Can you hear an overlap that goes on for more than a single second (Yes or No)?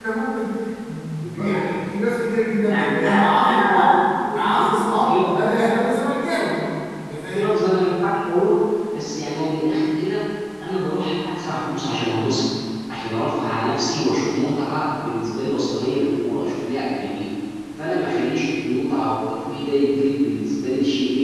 Yes